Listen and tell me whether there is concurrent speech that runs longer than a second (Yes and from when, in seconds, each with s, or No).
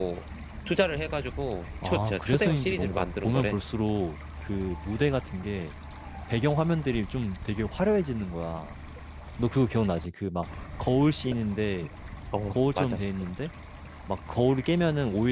Yes, from 1.8 s